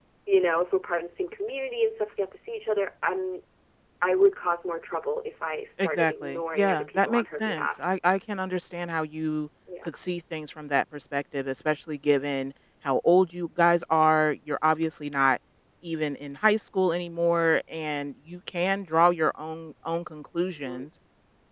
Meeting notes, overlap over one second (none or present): present